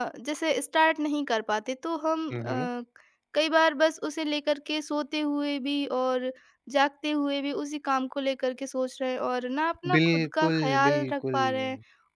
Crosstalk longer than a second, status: present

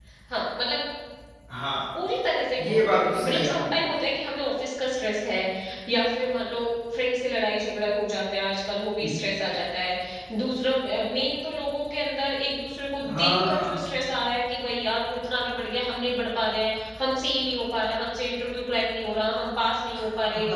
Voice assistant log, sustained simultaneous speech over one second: present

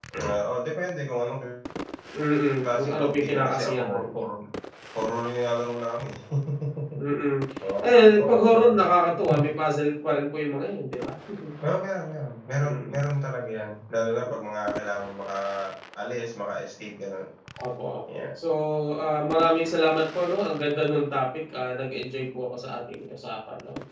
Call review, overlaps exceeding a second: present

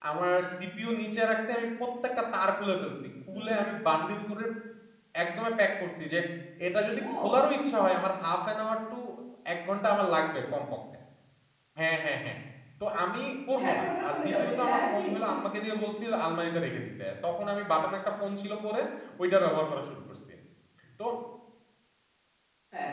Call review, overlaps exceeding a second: present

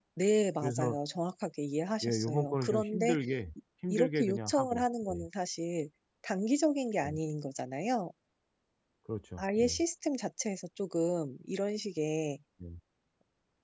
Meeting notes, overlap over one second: present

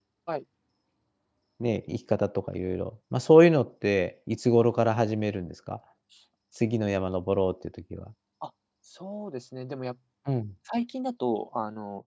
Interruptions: none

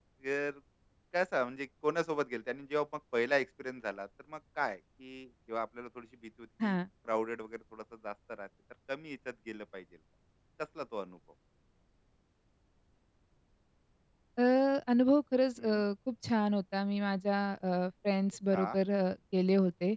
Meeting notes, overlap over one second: none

